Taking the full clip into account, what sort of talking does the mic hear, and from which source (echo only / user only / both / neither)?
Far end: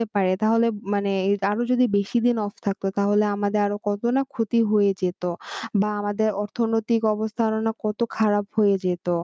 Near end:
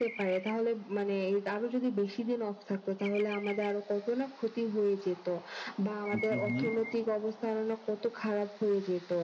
both